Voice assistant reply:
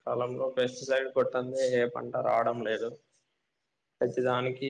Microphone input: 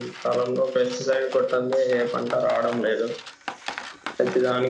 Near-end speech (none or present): none